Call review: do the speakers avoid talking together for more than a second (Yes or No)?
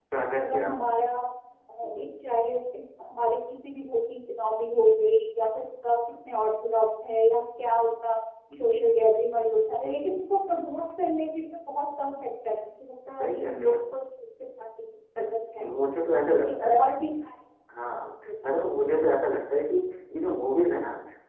Yes